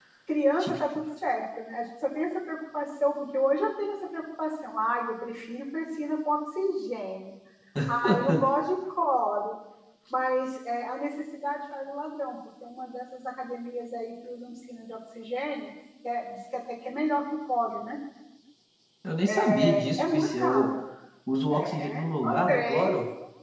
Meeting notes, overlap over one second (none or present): present